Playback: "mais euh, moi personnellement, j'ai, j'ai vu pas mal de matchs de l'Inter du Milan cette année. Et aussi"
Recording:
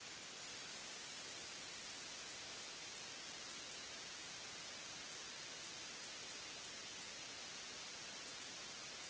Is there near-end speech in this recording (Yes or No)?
No